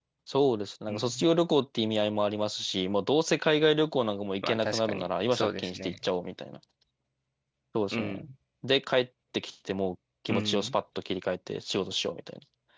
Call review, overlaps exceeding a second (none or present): present